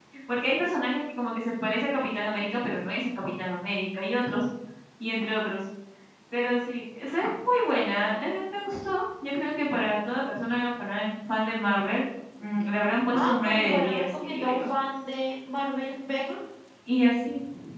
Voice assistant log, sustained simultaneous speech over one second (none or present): present